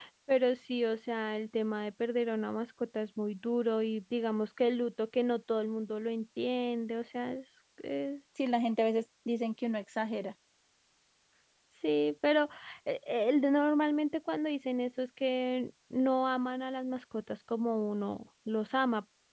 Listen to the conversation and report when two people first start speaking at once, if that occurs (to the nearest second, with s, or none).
none